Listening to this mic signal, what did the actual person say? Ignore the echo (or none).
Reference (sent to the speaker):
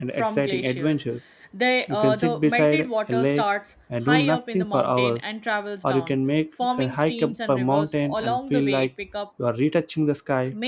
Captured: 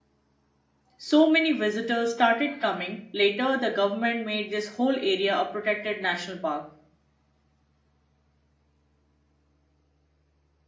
So many visitors started coming. Later, the government made this whole area a protected national park.